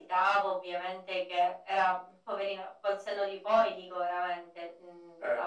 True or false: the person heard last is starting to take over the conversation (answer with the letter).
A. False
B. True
A